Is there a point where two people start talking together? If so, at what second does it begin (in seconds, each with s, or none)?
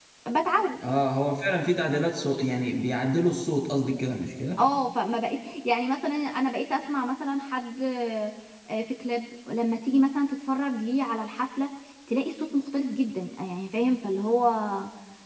none